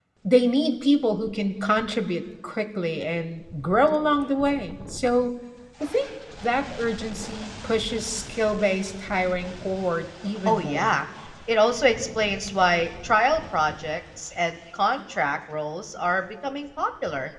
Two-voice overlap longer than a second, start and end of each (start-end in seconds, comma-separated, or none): none